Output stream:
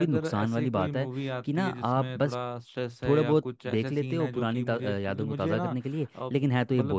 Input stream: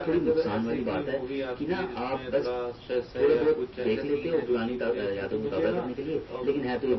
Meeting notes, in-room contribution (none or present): none